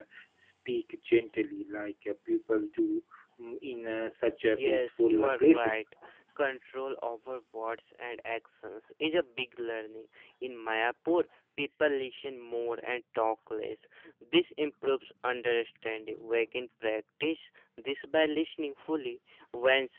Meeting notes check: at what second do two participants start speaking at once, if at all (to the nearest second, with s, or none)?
4 s